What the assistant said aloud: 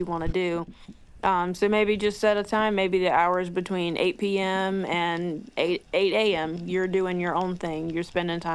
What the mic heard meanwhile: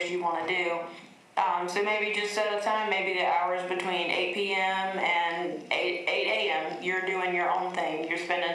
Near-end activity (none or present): none